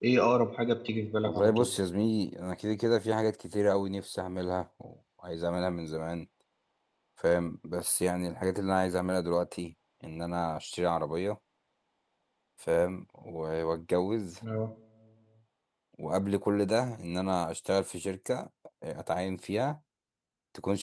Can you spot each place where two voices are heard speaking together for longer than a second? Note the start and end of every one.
none

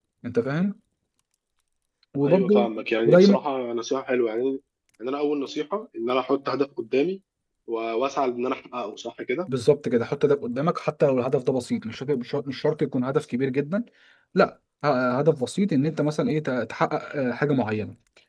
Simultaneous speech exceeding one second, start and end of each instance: none

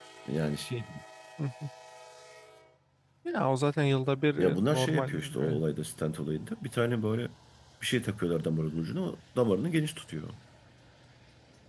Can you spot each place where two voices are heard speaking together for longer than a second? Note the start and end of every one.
4.4-5.6

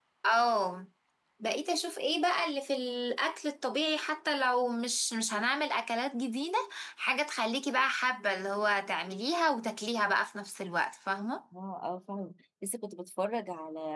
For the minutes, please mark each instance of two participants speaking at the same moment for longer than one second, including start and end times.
none

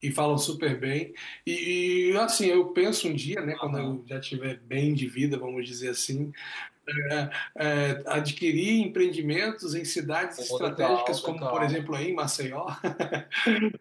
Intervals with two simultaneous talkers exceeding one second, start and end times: 10.4-11.9

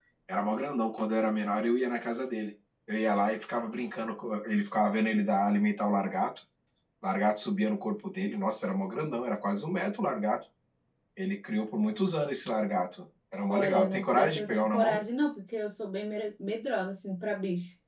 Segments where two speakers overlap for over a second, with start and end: 13.5-15.0

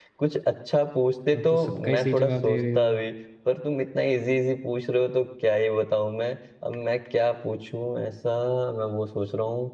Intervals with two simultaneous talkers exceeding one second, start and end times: 1.4-3.0

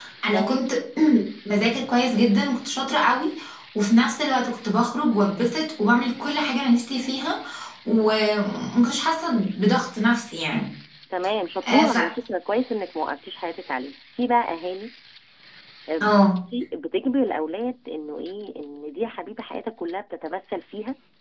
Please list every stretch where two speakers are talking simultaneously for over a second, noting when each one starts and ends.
none

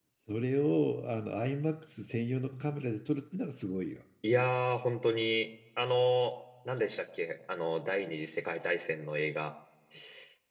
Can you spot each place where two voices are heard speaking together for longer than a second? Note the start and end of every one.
none

